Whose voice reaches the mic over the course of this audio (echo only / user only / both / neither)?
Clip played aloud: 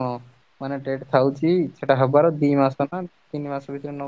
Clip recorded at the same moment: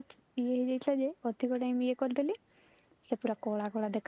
user only